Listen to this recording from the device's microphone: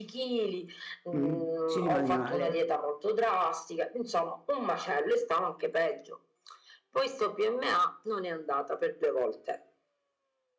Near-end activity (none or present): present